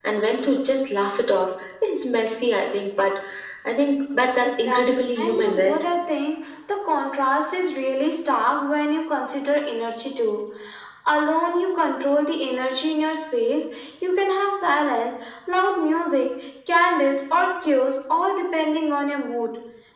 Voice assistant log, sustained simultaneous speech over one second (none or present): present